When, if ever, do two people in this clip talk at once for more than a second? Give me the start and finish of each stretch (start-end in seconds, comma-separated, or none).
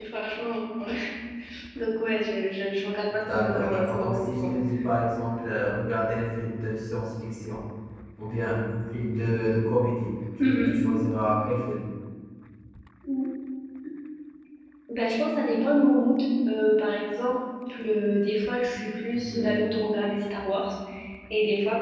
3.1-4.5